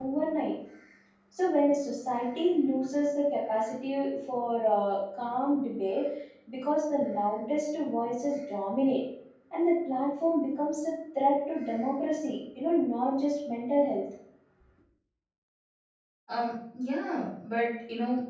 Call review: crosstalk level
none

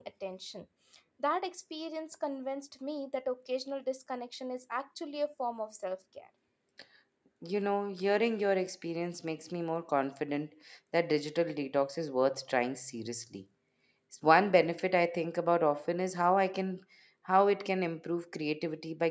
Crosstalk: none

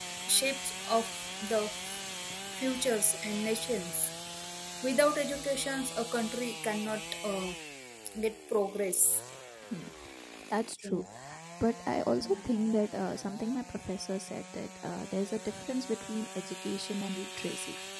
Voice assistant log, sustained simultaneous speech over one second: none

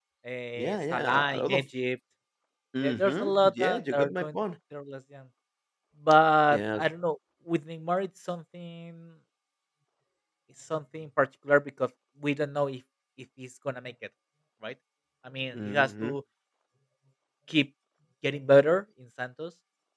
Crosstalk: present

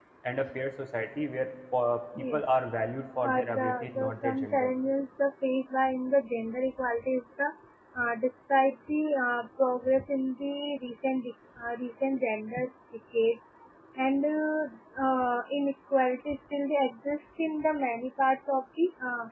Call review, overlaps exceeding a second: present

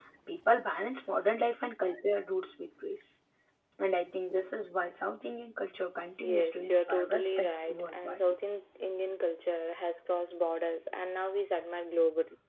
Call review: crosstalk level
present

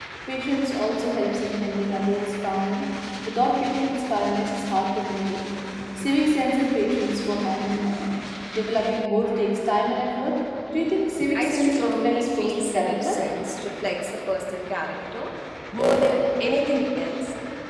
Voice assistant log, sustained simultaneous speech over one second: present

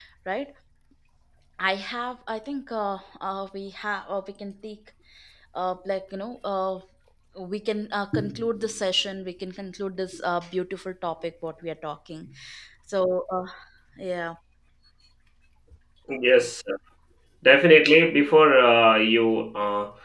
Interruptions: none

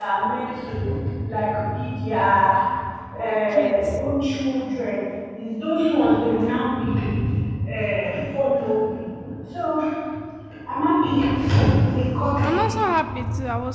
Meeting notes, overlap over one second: none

